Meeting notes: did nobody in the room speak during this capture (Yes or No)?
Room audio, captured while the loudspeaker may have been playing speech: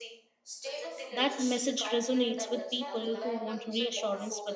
No